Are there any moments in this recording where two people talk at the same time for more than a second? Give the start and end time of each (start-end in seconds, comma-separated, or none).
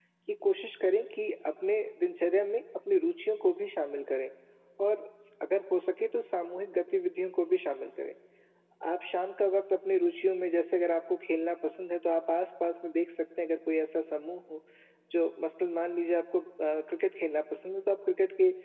none